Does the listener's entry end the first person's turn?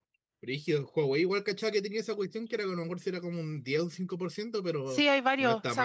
Yes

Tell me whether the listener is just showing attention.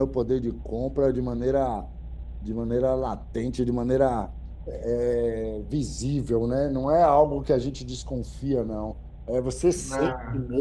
Yes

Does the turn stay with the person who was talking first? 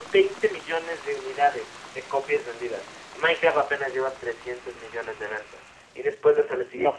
Yes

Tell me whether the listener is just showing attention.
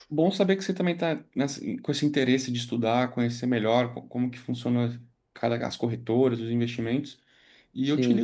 Yes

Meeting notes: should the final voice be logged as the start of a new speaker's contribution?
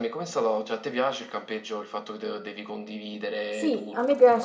Yes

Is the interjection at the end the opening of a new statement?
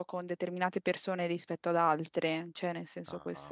Yes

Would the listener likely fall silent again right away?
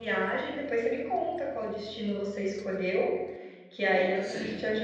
Yes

